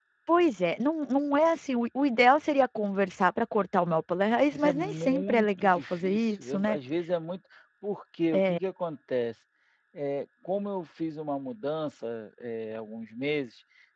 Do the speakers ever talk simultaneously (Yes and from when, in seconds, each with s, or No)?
Yes, from 4.5 s